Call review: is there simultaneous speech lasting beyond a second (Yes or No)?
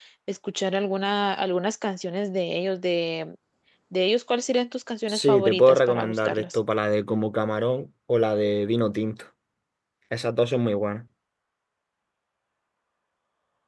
Yes